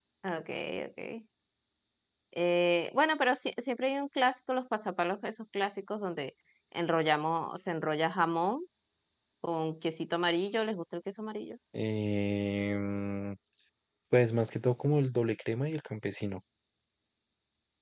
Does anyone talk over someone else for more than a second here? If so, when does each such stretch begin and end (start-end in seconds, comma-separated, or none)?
none